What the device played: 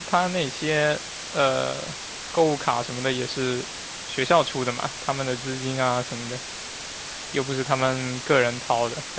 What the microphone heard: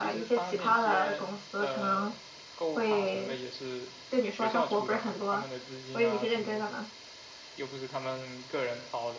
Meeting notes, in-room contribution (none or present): present